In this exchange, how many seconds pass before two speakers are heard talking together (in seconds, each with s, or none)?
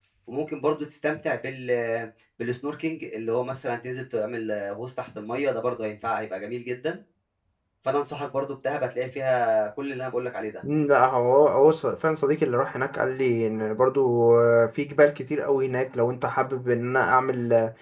none